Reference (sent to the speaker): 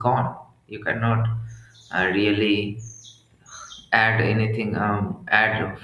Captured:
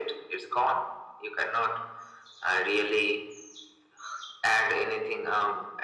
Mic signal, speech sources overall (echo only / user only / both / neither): echo only